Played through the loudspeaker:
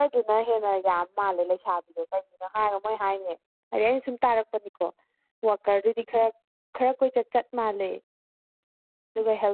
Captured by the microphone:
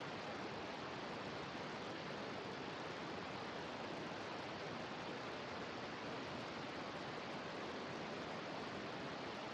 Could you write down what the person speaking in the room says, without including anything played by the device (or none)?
none